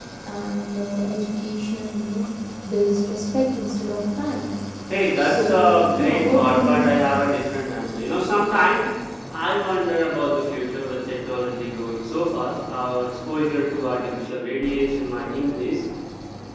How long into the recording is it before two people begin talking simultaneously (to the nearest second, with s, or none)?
5 s